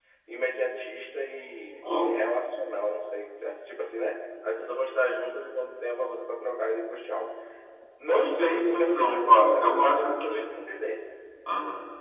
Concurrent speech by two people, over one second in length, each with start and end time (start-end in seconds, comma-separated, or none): 8.1-10.5